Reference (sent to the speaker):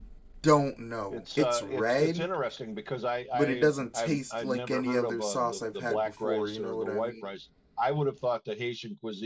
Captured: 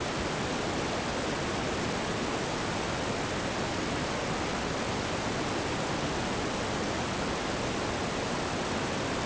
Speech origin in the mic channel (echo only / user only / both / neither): neither